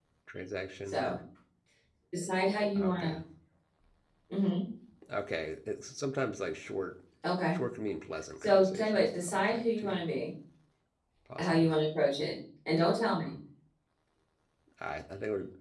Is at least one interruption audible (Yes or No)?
Yes